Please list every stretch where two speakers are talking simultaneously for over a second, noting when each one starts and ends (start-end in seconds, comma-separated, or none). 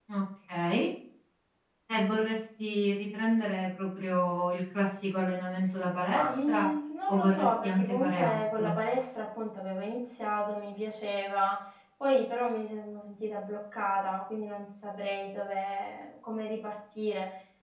7.1-8.7